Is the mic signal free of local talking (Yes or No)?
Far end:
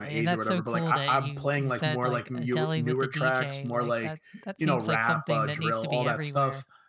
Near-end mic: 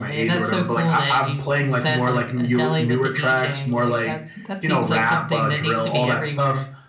Yes